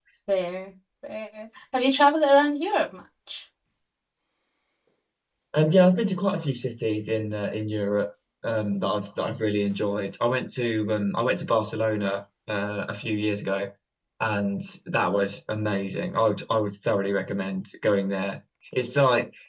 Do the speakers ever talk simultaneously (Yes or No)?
No